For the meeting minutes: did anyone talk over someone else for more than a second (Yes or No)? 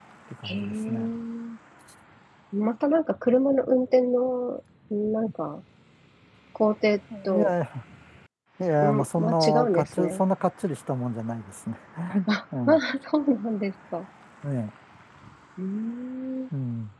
Yes